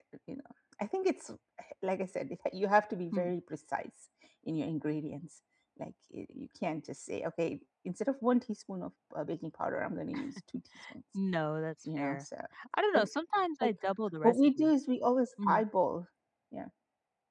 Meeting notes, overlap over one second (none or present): none